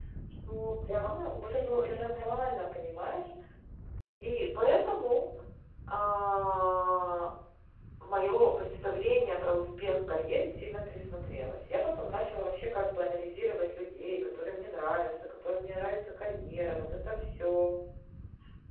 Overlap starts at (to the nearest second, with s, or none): 1 s